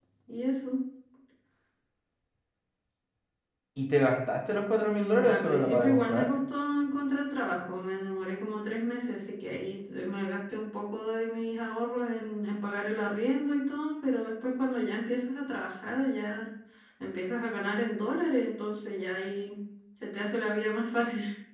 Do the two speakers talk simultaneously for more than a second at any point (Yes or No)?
Yes